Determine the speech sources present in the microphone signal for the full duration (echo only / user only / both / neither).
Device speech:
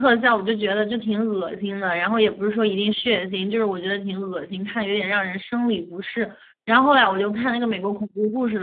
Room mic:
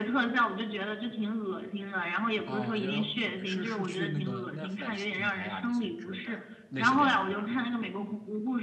both